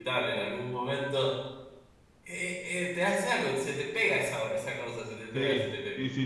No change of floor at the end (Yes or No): No